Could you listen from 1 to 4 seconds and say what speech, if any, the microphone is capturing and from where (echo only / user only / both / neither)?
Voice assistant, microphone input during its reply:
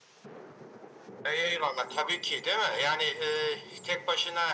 echo only